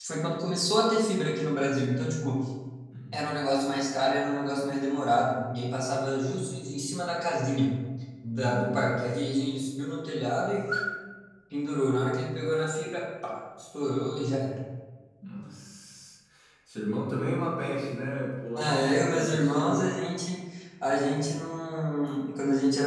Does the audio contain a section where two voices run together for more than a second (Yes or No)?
Yes